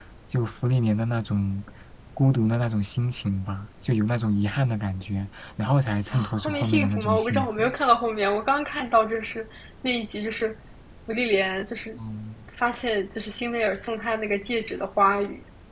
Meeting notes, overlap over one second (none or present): present